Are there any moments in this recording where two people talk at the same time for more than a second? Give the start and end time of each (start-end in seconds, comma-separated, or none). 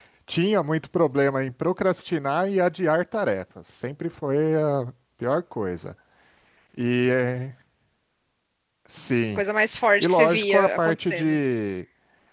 10.0-11.4